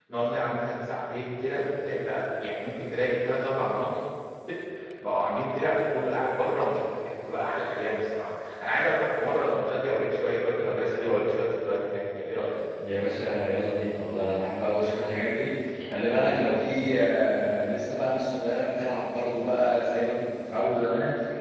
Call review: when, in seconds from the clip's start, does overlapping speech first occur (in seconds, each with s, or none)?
none